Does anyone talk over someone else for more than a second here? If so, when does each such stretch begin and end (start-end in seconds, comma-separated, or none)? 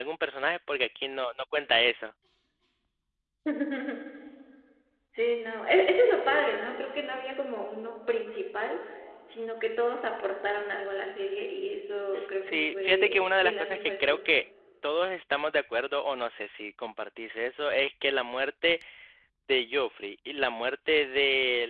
12.4-14.2